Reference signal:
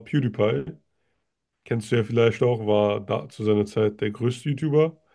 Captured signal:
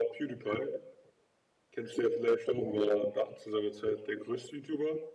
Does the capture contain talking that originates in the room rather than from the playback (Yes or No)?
No